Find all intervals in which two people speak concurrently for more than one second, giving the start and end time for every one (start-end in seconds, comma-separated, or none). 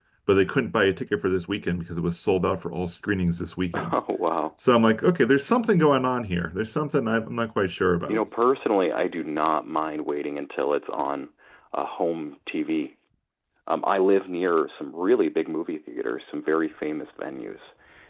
none